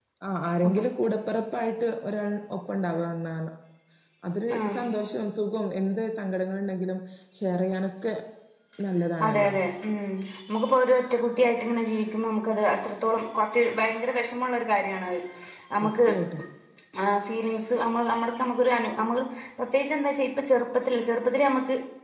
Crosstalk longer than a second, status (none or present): none